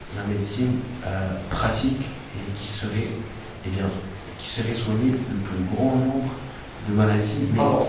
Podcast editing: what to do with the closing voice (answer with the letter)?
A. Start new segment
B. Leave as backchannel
B